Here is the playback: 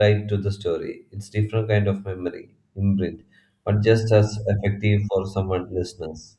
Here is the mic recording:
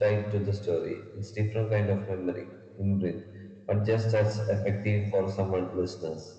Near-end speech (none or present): none